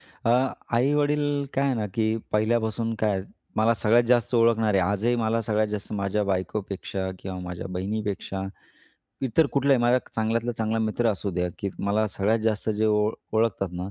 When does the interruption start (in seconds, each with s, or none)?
none